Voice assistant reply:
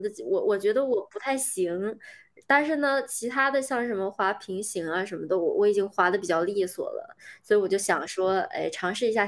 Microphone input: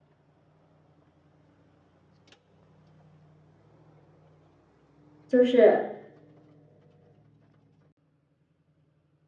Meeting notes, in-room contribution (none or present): present